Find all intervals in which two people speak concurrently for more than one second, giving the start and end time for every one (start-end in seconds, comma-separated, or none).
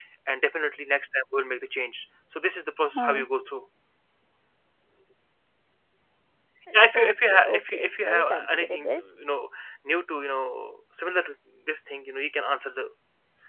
6.9-8.9